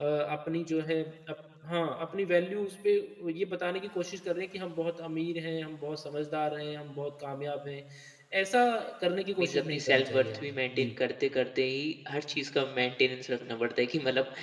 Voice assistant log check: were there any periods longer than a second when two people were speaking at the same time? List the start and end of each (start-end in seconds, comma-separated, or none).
9.4-10.9